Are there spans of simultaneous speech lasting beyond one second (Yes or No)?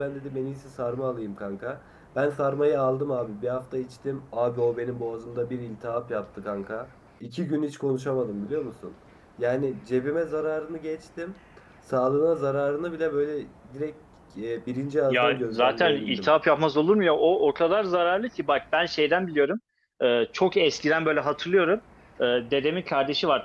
Yes